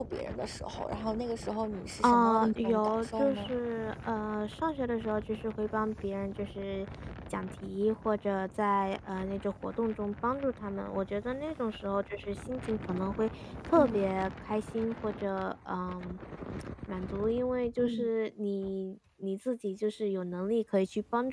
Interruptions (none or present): present